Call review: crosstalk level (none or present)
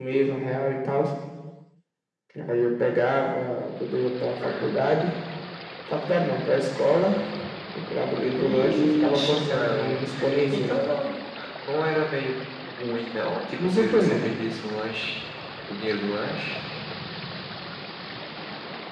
present